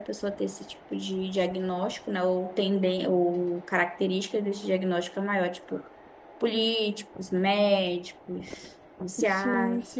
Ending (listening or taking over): taking over